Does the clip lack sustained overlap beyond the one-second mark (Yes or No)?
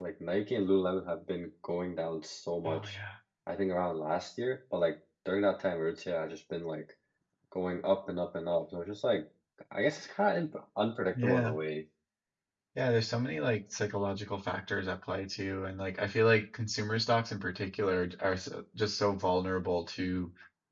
Yes